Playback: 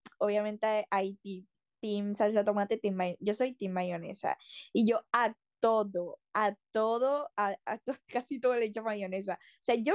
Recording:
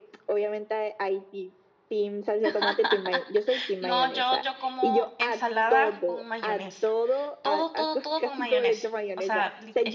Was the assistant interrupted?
Yes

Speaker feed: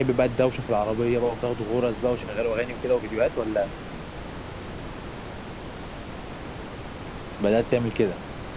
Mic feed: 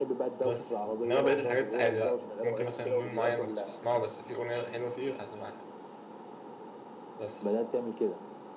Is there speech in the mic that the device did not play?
Yes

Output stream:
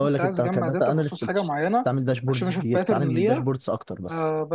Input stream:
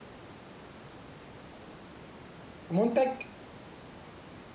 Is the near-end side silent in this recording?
No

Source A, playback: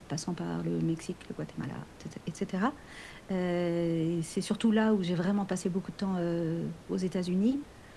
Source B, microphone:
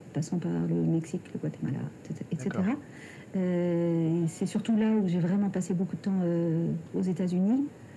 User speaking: Yes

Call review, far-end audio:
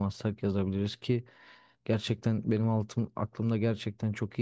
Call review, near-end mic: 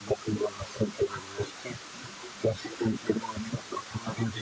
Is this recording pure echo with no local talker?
Yes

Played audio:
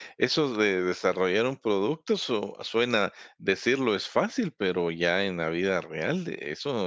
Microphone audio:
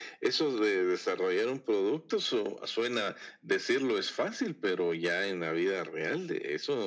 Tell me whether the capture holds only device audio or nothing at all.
Yes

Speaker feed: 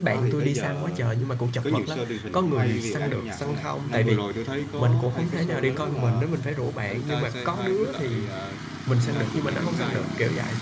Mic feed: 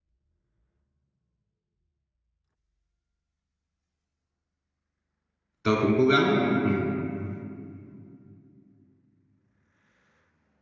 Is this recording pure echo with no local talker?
No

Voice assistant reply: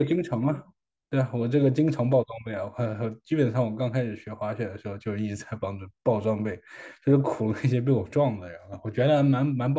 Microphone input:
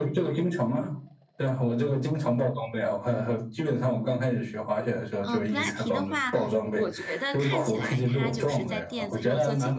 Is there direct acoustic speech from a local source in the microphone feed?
Yes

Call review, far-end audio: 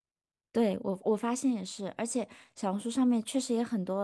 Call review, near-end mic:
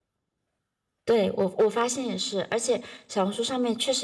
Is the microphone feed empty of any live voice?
Yes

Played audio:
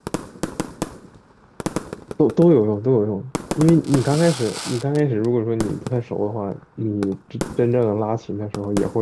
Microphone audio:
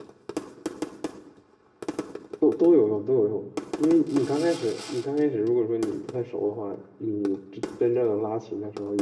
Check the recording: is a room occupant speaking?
No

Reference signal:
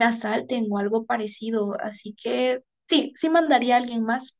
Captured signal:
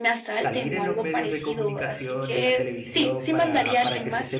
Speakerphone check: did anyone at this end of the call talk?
Yes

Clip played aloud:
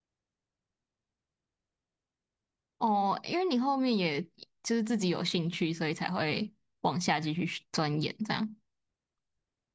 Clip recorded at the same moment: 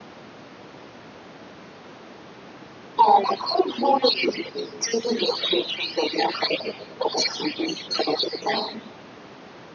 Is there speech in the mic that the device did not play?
No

